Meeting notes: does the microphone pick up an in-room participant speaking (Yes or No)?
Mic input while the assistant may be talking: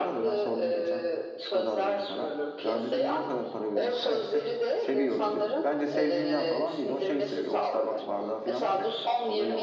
Yes